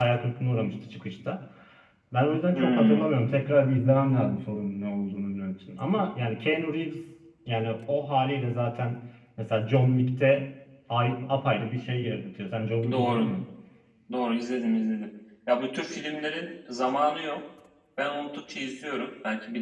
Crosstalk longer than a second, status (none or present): none